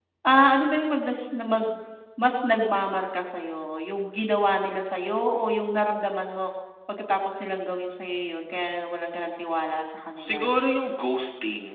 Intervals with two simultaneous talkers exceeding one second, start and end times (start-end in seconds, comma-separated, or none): none